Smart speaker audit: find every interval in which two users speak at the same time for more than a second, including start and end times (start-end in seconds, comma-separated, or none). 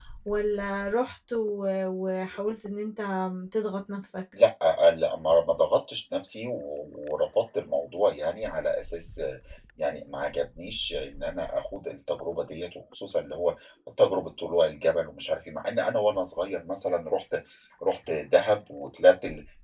none